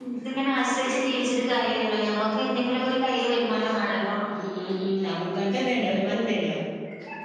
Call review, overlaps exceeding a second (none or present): none